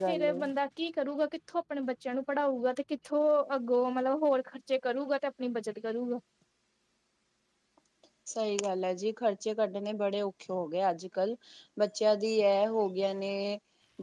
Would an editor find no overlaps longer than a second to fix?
Yes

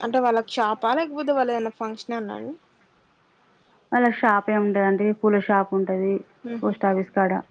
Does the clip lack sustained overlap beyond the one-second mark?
Yes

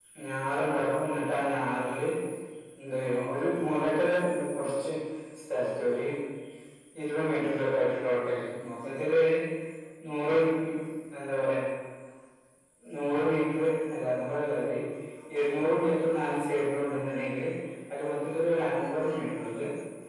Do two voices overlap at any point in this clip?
No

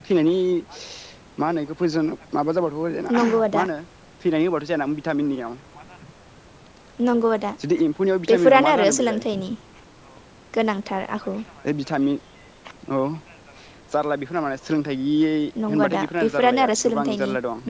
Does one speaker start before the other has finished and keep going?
Yes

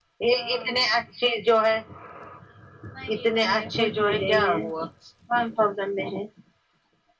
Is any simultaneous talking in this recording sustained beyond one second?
Yes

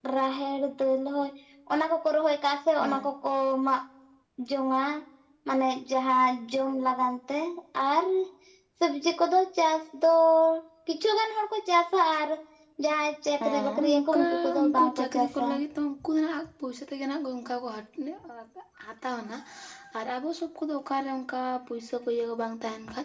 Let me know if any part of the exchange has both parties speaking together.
Yes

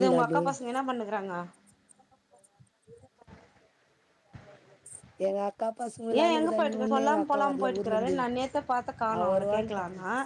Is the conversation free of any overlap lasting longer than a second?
No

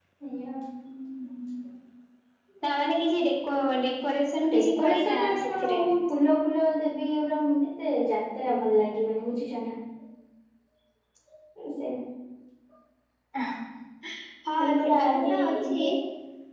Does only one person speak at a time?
No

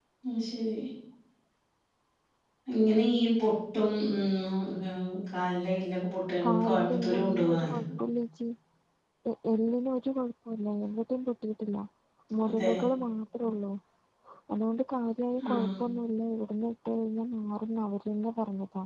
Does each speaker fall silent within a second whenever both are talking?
No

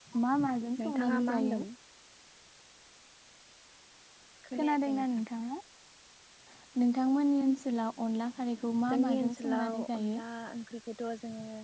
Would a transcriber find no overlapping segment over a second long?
No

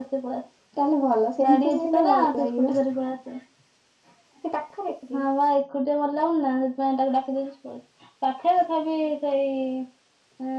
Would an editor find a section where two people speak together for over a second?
Yes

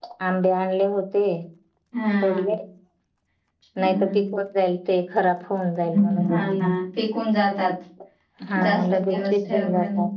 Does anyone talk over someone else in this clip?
Yes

